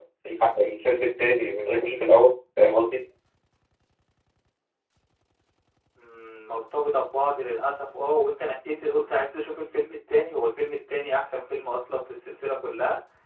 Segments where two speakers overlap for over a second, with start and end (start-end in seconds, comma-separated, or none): none